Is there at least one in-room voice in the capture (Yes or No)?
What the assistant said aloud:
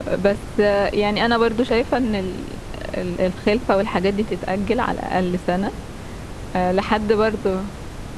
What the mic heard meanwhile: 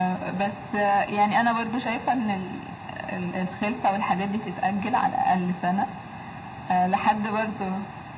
No